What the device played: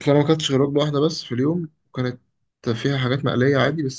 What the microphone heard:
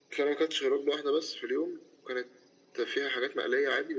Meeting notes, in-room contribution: none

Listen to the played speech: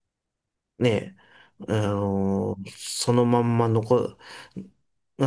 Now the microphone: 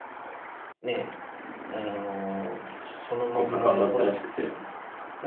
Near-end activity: present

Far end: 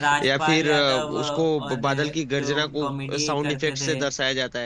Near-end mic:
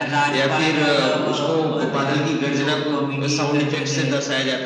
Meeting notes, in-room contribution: none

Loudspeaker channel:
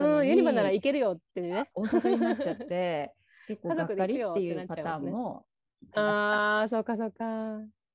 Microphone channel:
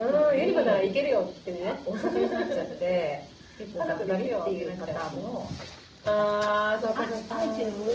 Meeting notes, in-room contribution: present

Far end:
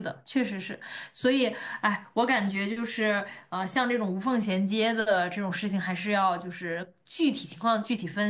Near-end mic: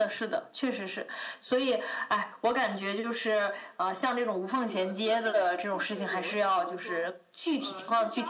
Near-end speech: present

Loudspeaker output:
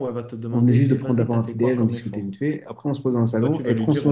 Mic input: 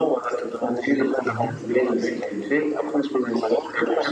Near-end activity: present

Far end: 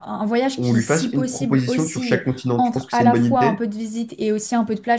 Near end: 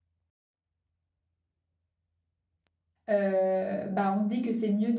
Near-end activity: present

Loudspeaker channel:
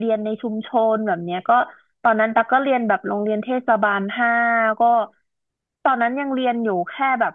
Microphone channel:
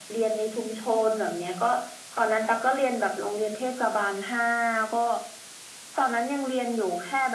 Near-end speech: none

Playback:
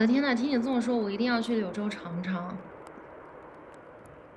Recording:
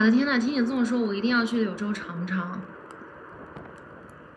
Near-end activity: none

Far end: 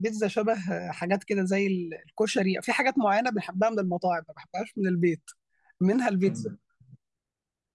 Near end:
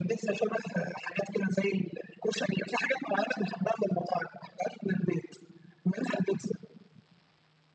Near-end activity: none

